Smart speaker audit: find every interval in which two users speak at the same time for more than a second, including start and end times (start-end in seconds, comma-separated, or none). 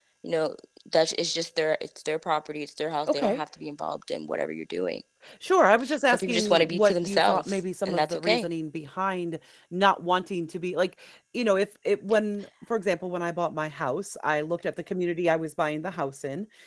6.0-8.5